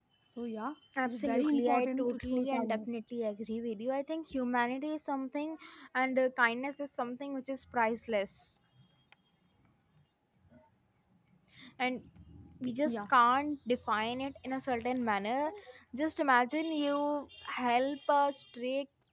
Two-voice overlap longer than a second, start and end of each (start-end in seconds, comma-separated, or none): 1.0-2.8